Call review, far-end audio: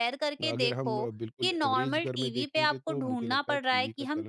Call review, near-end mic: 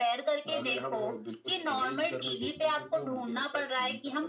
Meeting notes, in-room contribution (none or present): present